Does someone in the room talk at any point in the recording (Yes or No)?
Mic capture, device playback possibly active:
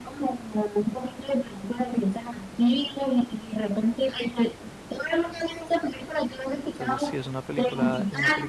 Yes